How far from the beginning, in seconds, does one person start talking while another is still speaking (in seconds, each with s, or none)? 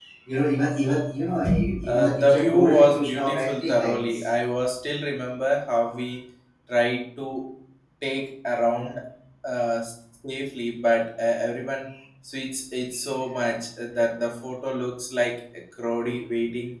1.8 s